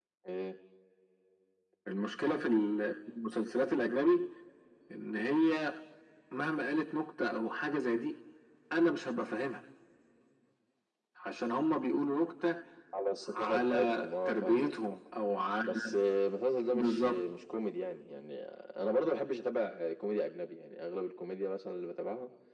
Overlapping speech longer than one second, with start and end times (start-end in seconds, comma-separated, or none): 13.3-14.7